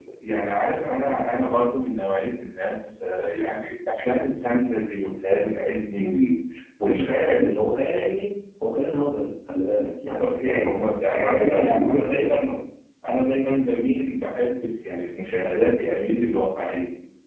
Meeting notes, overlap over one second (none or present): present